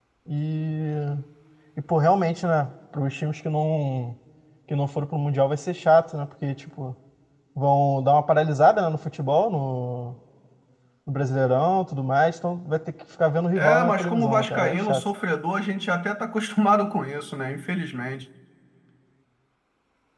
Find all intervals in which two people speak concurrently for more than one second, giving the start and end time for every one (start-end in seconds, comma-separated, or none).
13.6-15.0